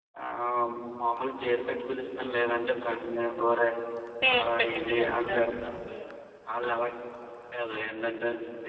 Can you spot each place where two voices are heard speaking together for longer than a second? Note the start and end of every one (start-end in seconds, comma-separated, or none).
4.2-5.5